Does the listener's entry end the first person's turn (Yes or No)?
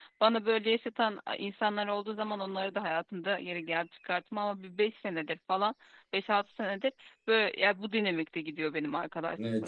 Yes